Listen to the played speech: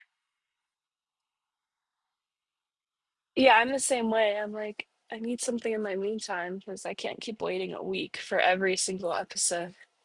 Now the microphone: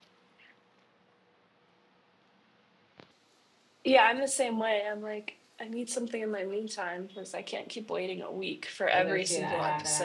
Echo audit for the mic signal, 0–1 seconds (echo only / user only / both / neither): neither